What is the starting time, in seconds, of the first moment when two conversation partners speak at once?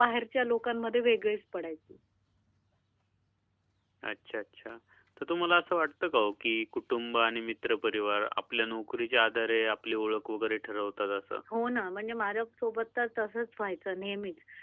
none

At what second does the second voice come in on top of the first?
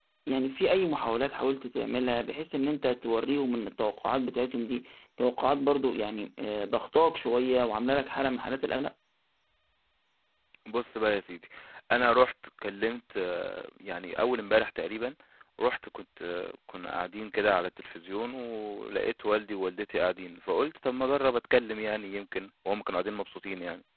none

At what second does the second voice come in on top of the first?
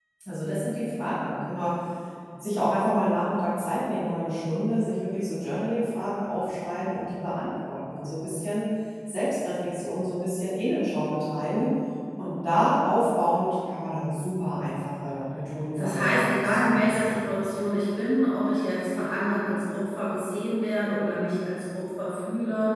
15.8 s

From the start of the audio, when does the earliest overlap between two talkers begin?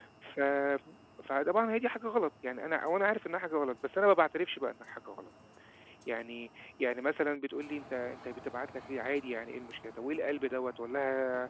none

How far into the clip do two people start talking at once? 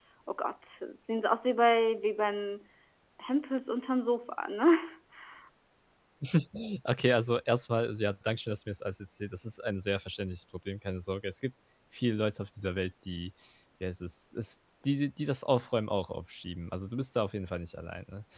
none

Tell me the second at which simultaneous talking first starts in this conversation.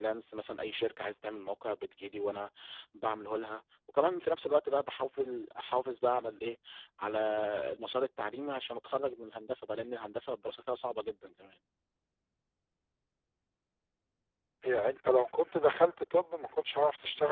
none

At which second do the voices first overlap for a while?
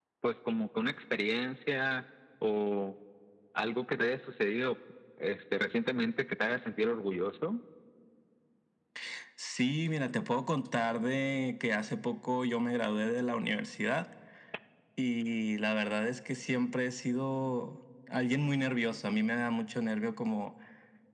none

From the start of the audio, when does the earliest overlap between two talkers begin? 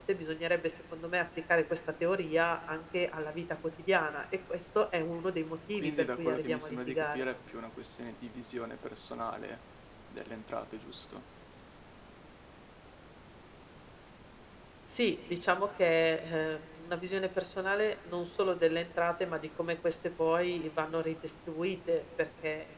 5.7 s

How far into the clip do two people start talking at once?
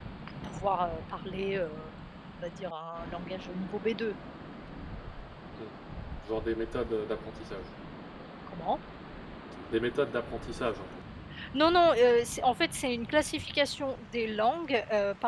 none

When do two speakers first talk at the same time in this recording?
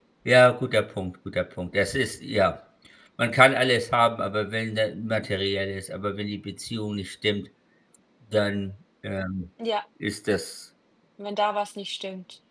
none

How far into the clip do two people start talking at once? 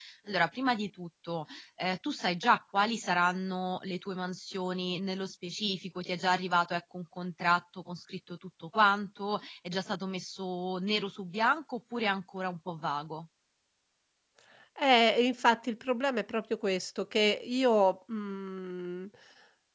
none

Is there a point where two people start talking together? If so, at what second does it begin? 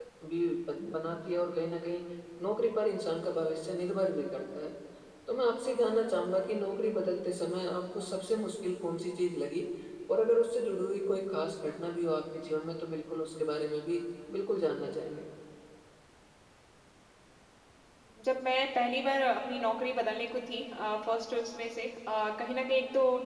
none

